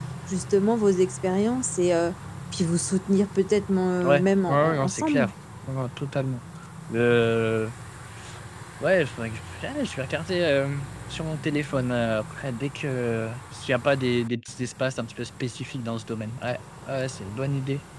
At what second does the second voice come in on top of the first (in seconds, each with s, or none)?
4.0 s